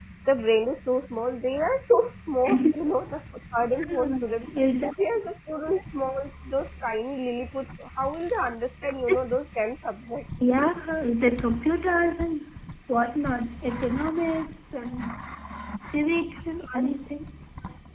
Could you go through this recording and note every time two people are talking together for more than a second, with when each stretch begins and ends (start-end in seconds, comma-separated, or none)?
none